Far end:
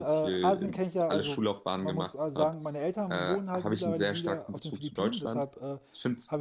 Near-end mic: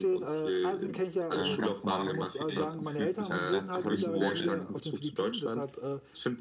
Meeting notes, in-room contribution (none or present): present